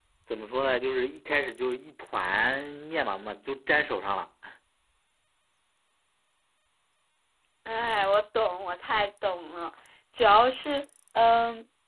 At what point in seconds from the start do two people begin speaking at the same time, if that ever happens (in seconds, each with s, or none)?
none